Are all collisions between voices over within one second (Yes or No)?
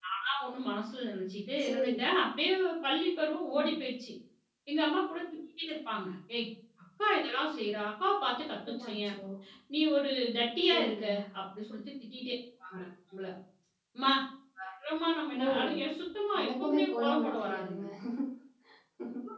No